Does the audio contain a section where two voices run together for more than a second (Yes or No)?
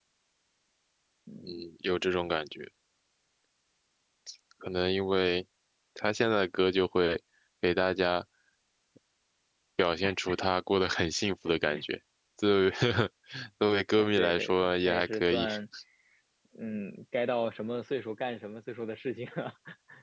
Yes